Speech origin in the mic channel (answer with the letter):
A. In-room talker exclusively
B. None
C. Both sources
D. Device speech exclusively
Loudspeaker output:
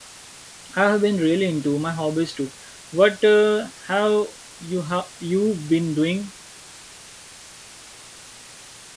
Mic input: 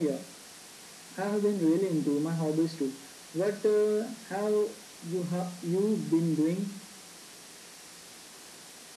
D